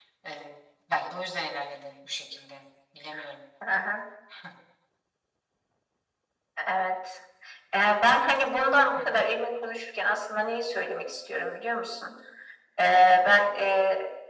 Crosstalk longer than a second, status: none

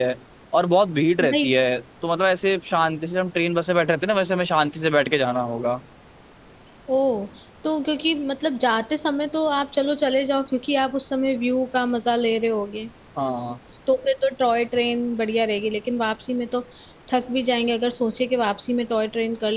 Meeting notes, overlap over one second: none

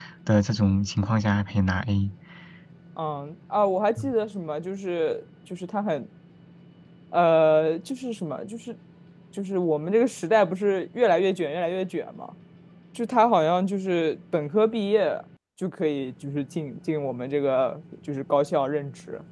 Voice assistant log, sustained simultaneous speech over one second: none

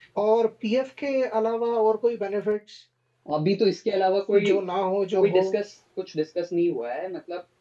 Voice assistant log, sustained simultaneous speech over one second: none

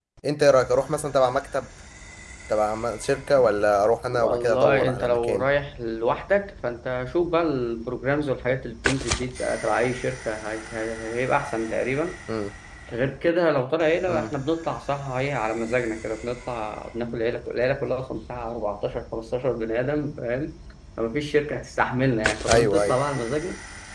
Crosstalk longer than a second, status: present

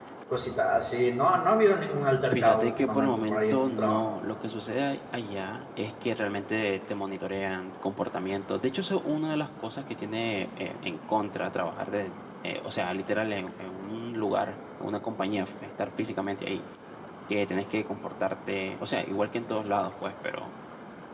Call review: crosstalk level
present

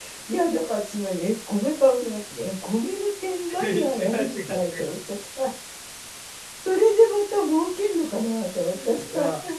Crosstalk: present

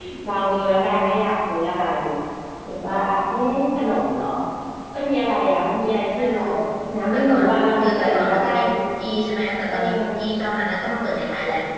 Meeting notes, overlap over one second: present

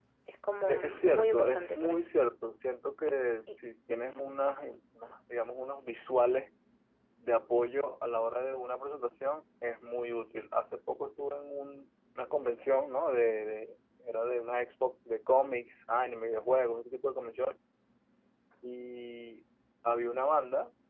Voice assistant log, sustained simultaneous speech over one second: present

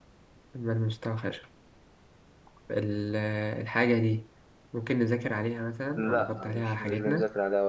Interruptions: present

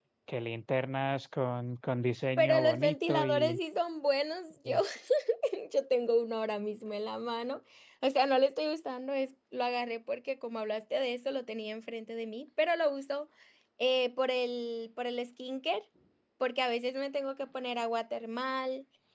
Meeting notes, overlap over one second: present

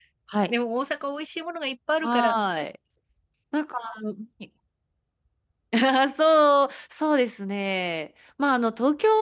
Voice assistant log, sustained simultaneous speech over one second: none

